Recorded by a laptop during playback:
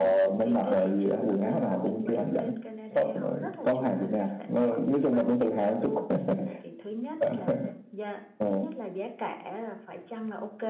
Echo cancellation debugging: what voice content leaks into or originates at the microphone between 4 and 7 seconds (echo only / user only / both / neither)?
both